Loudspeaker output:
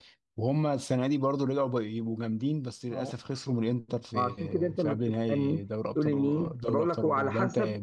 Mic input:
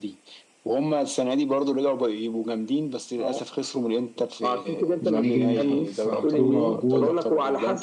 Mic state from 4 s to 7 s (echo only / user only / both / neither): both